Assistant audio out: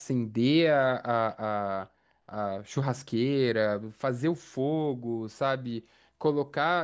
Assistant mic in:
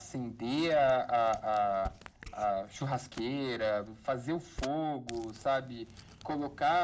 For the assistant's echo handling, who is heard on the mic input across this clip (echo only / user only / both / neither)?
echo only